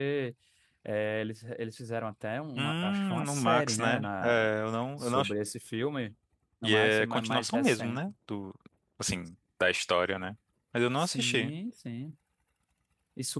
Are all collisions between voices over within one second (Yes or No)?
No